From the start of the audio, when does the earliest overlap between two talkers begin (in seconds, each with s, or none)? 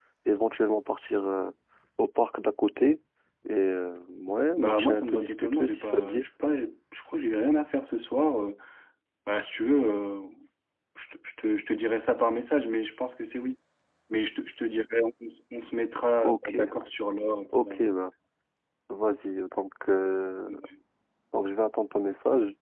4.6 s